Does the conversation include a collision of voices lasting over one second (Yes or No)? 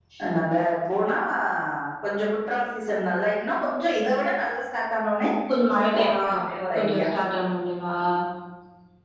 No